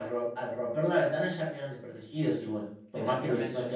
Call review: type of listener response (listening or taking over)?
taking over